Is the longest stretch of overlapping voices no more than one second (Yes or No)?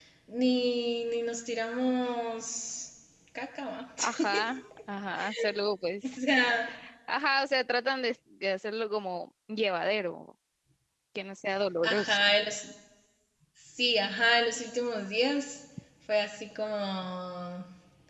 Yes